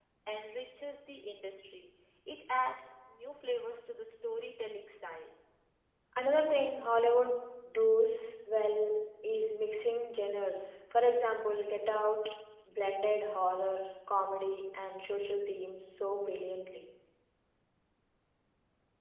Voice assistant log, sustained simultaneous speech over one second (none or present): none